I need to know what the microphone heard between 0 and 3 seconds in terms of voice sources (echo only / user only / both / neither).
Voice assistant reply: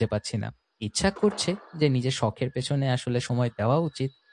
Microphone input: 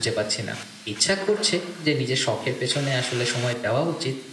echo only